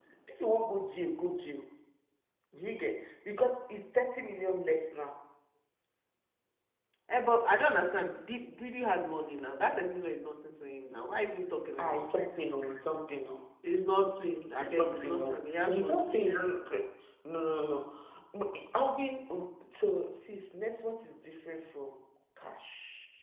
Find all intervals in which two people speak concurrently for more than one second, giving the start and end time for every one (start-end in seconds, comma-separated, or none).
14.6-16.0